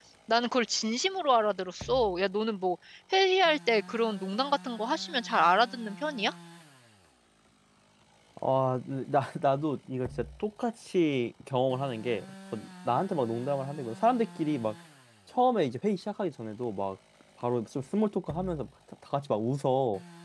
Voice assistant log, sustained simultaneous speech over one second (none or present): none